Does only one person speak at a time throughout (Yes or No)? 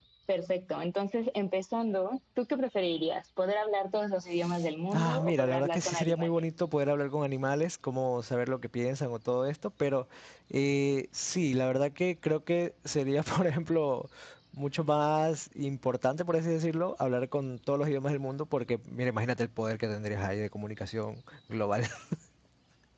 No